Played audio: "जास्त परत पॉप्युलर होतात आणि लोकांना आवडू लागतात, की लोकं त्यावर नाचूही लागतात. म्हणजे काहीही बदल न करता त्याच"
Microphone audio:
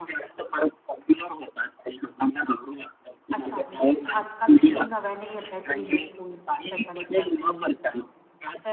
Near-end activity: present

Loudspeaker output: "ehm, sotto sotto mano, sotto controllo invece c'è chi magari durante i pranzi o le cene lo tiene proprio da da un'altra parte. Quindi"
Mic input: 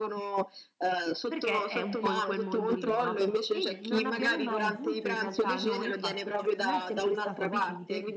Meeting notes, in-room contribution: present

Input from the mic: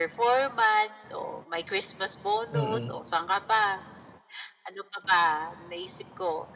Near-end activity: present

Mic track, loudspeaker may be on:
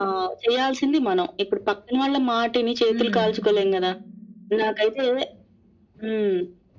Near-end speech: present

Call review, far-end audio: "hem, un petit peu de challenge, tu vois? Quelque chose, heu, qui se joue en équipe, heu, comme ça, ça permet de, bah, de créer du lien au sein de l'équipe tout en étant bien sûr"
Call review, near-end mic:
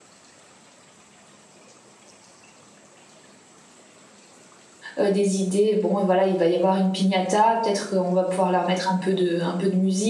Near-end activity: present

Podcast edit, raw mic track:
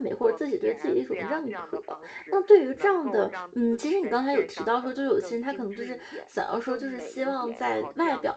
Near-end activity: present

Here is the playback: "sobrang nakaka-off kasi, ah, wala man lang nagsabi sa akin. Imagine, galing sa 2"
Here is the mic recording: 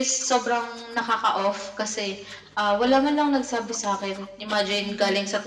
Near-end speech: present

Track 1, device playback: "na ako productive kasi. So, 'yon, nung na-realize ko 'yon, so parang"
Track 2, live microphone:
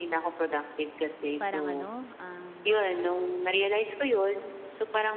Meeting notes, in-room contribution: present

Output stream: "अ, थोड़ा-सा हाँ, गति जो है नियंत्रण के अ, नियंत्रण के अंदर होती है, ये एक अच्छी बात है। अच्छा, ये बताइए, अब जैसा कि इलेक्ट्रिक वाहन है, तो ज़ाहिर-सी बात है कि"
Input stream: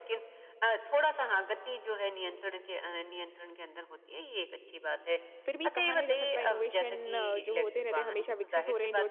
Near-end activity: present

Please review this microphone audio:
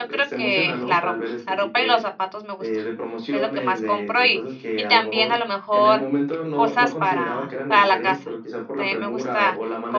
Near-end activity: present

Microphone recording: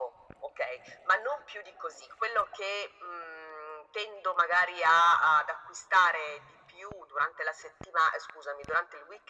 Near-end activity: none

